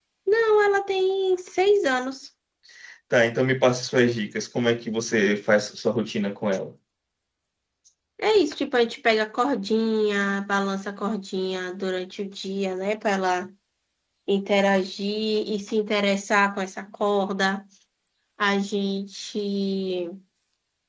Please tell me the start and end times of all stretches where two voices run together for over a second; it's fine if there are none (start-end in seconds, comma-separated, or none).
none